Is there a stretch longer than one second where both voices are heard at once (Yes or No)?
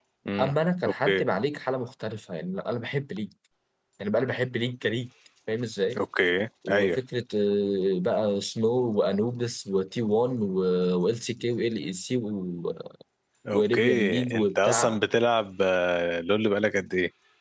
Yes